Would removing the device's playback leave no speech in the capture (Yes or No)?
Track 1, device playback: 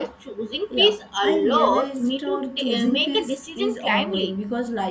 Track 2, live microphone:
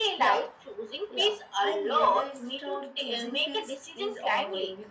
Yes